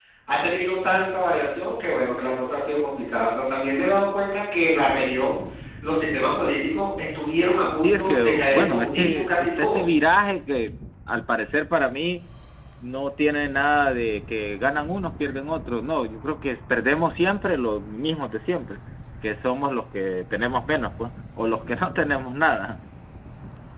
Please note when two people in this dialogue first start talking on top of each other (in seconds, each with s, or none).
7.8 s